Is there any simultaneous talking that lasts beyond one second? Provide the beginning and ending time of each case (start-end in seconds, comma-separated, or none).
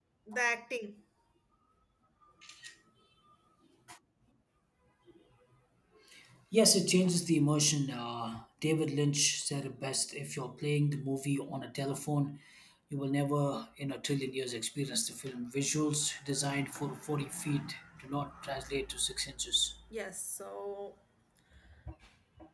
none